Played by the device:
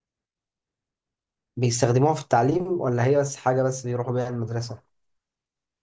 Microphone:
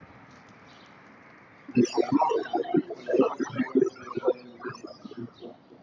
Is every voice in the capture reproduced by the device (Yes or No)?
Yes